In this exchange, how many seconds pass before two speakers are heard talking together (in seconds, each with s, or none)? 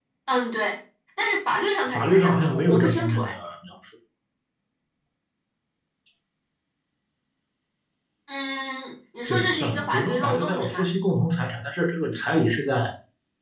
1.9 s